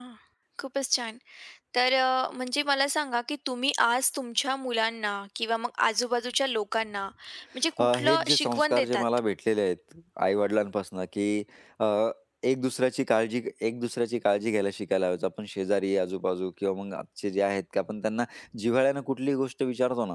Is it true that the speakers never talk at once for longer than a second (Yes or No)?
No